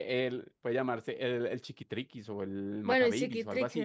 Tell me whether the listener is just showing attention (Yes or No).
No